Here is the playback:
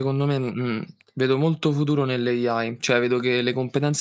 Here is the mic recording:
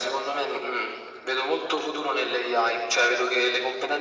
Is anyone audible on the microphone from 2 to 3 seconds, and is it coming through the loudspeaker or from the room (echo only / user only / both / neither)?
echo only